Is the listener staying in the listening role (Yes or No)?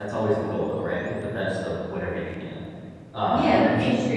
No